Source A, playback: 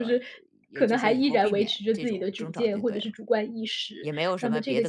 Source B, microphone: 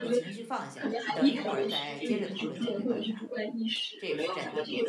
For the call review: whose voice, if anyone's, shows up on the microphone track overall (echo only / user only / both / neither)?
both